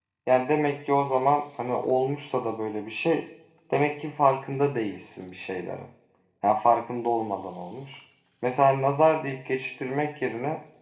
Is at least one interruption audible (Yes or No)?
No